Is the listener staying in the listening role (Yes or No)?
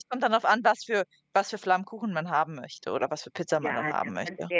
No